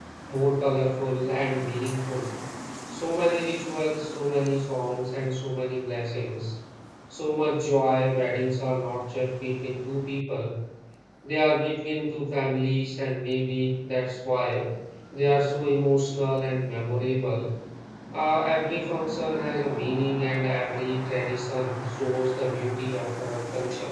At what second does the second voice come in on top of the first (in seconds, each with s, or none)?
none